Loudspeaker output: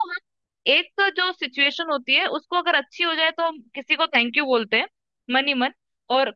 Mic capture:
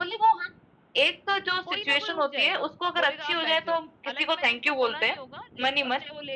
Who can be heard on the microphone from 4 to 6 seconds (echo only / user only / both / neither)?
both